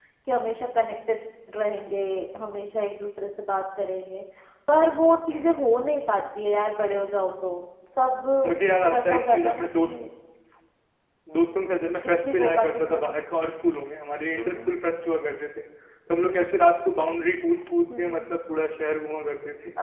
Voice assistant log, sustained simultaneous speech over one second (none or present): present